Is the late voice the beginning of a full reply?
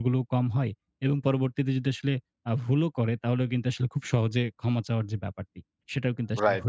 Yes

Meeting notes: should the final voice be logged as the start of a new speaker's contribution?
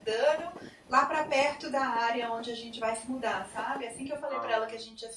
No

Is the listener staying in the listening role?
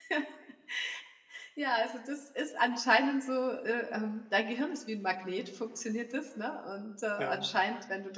Yes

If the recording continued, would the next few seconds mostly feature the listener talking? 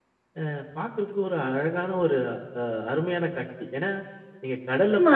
Yes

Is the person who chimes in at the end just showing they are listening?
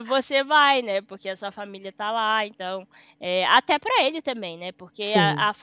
Yes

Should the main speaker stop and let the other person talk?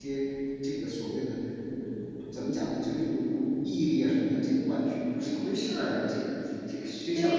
Yes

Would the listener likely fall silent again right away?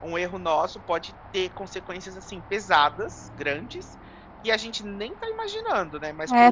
No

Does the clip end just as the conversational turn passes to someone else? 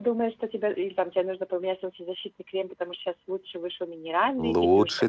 Yes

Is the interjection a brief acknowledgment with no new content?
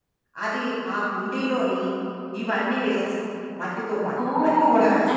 No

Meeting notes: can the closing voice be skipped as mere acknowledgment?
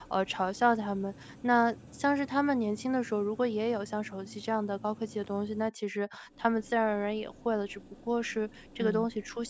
Yes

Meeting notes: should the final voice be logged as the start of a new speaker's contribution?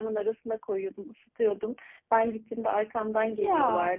No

